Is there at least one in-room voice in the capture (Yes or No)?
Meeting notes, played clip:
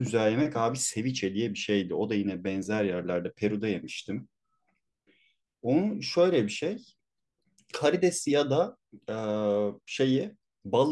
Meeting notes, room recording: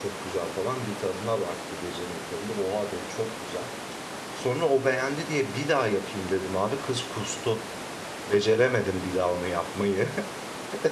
Yes